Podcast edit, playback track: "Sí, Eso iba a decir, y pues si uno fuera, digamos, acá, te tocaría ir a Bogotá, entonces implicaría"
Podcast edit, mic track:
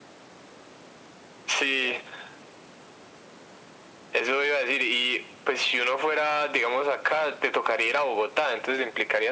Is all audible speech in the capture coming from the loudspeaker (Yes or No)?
Yes